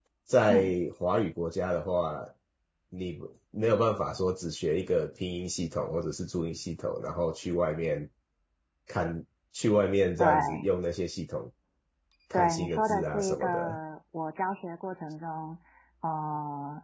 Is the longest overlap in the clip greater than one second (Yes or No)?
Yes